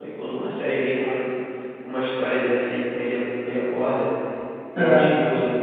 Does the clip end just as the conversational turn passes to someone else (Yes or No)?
No